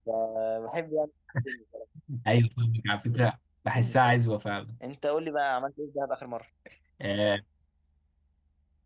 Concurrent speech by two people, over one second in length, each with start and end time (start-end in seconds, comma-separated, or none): none